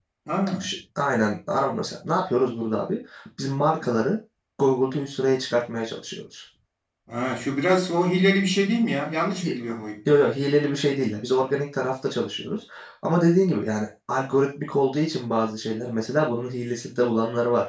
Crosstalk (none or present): none